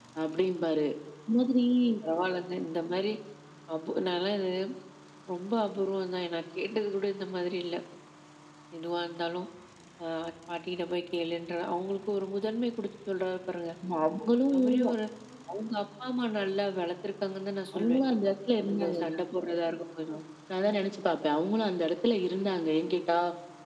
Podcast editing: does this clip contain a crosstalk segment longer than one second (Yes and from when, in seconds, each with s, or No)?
No